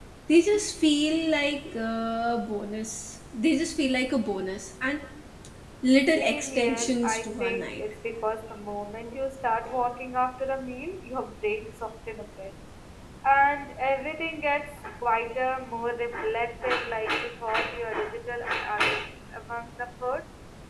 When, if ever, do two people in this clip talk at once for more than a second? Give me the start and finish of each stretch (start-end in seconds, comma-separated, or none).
6.1-7.8